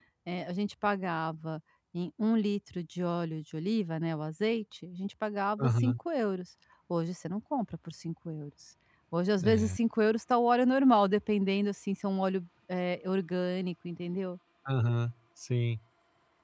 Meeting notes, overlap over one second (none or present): none